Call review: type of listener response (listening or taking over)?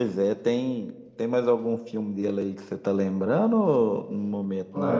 taking over